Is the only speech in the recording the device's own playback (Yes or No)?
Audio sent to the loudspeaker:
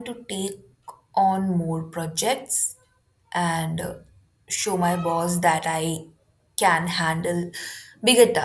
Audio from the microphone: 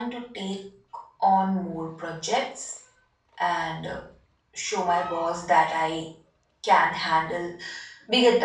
Yes